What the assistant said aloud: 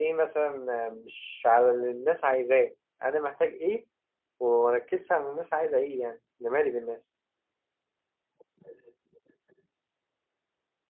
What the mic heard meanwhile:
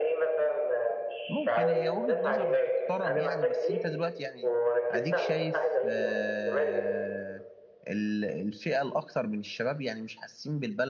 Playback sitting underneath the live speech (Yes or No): No